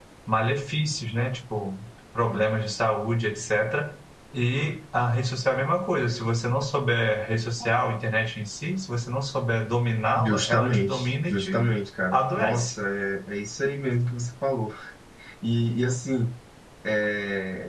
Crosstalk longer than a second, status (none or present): present